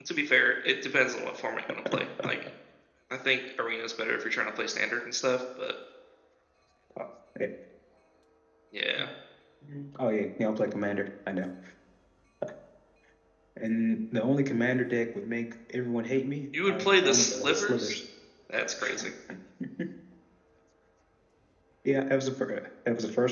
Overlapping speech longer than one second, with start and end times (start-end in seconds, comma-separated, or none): 16.6-18.0